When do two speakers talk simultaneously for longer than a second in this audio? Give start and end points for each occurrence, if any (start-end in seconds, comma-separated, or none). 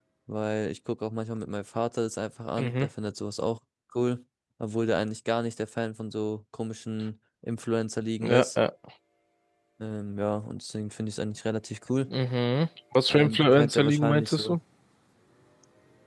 13.1-14.6